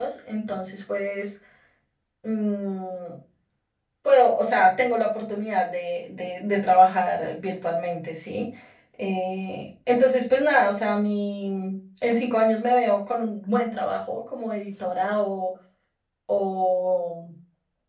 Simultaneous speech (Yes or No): No